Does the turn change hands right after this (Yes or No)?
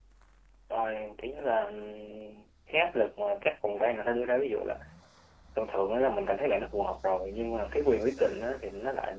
No